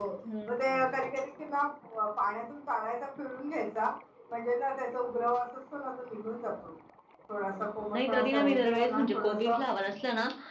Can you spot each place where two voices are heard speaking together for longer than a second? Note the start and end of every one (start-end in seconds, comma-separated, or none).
7.4-9.6